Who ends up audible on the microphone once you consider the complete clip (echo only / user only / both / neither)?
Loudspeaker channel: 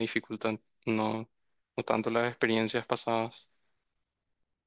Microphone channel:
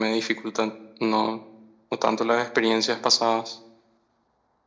echo only